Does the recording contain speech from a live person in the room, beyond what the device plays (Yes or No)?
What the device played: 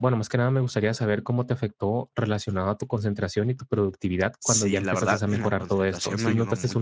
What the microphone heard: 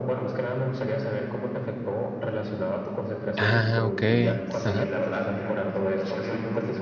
Yes